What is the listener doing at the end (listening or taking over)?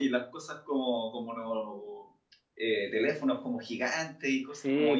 taking over